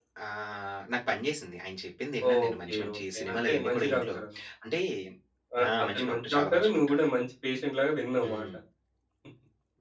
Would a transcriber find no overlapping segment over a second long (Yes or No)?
No